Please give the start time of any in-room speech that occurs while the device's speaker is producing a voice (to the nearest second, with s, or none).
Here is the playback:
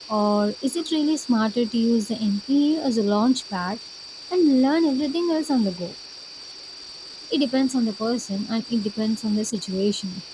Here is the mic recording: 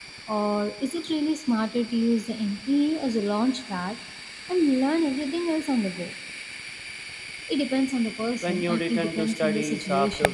8 s